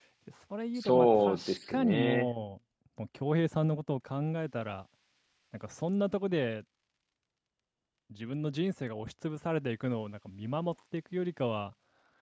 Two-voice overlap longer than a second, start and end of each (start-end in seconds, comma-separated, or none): 0.8-2.3